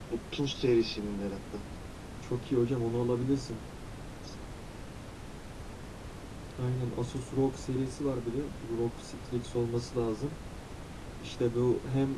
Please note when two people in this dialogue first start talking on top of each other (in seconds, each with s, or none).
none